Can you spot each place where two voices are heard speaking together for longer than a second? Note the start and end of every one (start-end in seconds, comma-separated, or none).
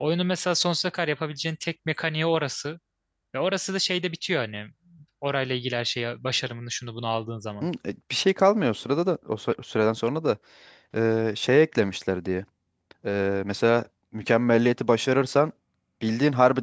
none